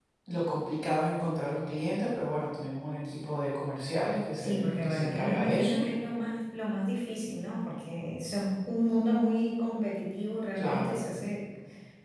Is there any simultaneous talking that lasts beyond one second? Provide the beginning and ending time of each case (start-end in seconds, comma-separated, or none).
4.4-5.8